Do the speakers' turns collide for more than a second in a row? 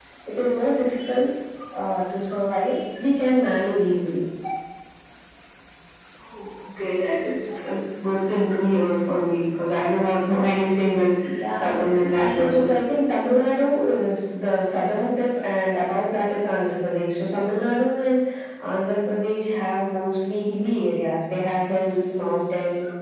No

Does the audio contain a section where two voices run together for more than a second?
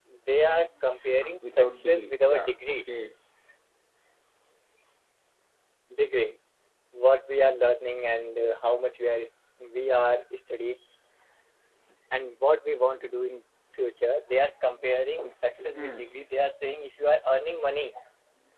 Yes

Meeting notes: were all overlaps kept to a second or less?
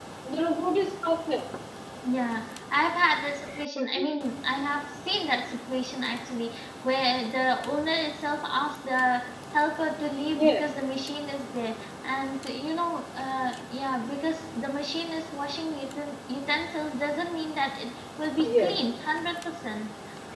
Yes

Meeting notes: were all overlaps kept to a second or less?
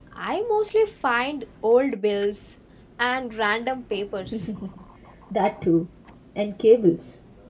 Yes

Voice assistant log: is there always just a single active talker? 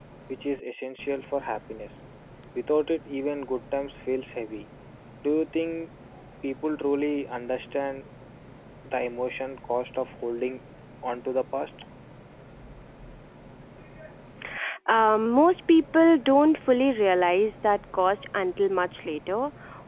Yes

